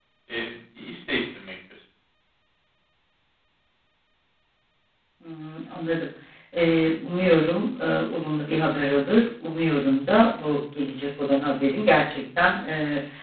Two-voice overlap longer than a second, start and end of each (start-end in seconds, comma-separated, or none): none